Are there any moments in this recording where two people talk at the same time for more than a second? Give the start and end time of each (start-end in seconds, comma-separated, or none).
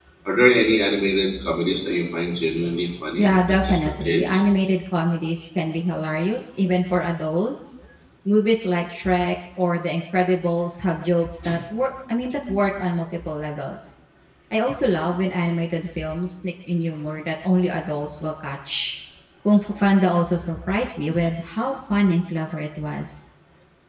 3.2-4.5